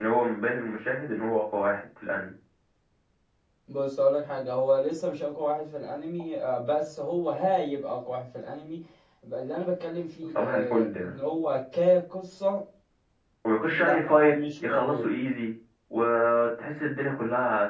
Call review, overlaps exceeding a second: present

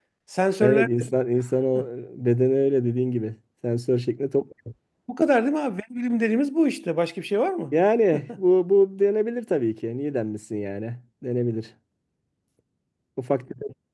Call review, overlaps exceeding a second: none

